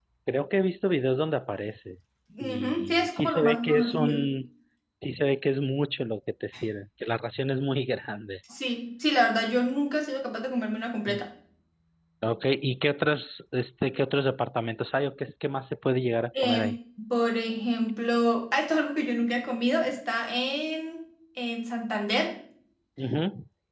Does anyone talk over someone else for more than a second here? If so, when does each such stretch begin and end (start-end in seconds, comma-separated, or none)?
2.4-4.2